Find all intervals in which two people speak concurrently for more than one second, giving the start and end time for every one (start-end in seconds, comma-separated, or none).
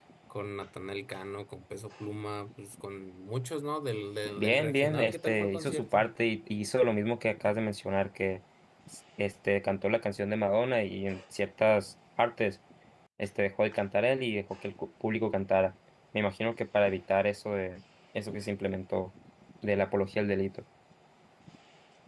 4.3-6.1